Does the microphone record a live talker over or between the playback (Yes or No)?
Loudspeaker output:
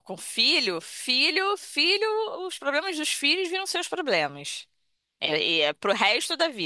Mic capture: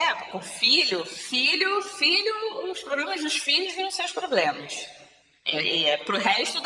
No